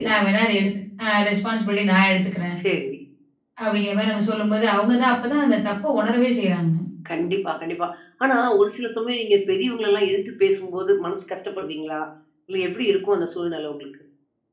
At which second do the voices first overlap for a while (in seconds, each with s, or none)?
none